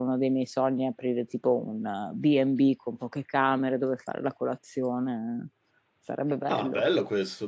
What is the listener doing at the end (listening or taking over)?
taking over